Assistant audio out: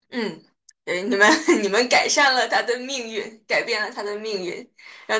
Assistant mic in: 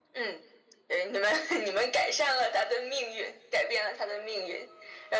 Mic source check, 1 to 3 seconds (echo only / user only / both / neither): echo only